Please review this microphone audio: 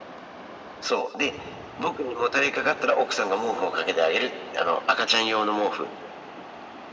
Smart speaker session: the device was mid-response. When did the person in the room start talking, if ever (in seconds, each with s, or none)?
none